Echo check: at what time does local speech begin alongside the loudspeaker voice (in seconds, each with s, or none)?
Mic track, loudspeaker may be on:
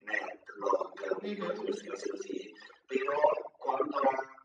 1.2 s